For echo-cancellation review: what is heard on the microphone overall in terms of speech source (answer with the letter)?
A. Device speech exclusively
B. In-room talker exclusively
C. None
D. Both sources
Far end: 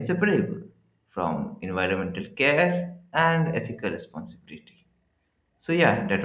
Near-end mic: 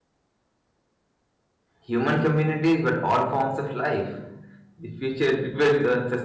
B